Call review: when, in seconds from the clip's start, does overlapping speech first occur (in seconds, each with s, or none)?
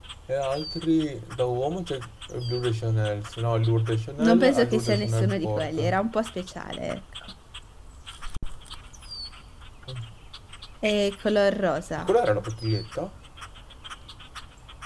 4.2 s